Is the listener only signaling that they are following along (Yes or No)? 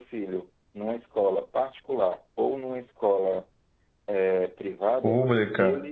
No